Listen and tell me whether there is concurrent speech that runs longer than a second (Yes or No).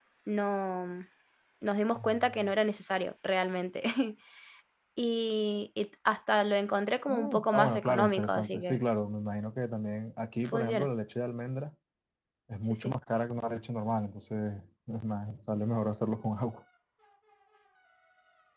Yes